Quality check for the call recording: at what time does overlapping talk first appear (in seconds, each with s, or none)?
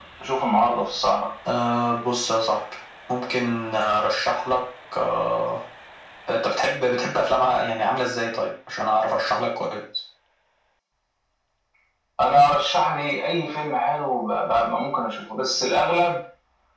none